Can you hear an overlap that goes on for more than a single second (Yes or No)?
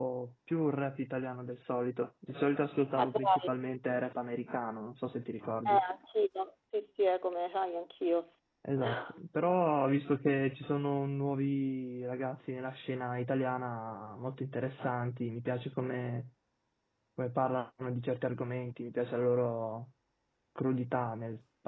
No